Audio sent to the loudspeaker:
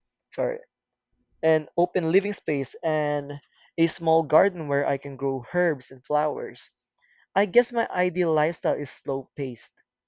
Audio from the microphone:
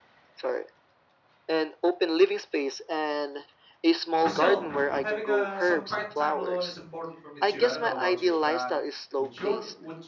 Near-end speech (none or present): present